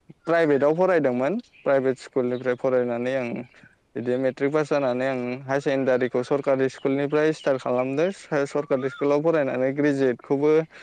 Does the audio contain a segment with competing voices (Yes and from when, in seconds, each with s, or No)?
No